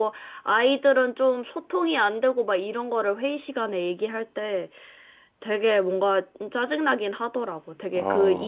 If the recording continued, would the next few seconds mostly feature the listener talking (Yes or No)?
No